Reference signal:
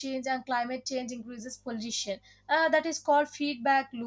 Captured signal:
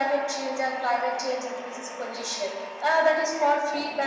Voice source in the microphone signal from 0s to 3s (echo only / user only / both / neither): echo only